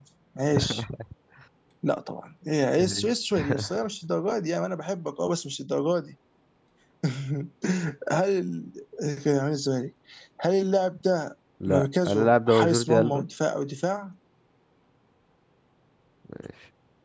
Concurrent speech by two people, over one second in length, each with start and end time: 11.7-13.2

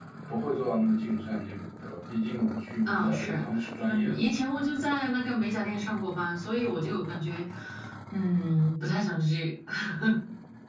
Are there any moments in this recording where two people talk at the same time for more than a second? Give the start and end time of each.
2.9-4.3

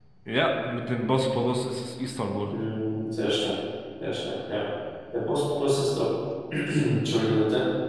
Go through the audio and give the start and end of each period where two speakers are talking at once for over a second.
none

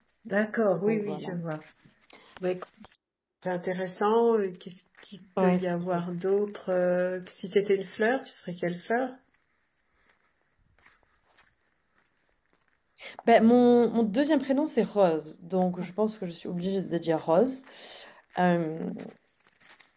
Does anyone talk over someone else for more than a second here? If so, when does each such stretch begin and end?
none

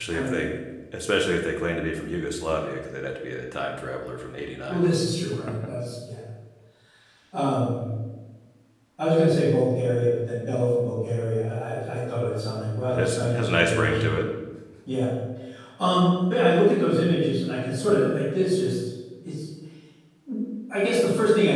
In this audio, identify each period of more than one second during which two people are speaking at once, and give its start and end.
12.9-14.2

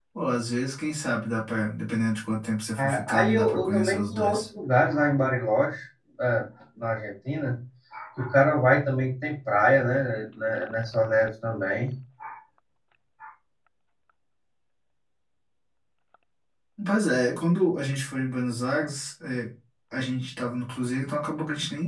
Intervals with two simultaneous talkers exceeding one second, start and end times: 2.8-4.4

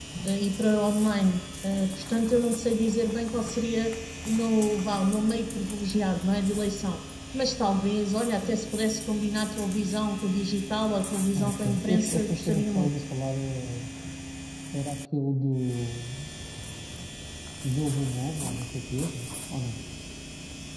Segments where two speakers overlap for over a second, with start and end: 11.3-12.9

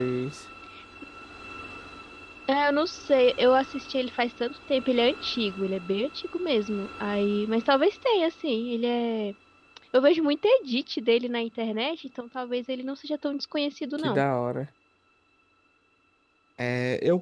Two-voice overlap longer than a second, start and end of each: none

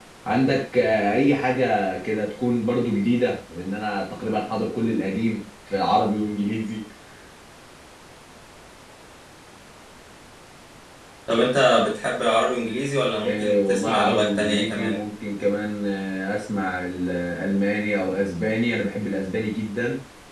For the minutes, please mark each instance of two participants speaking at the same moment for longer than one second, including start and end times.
13.2-15.0

